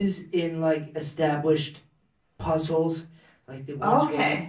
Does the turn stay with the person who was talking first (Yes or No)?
Yes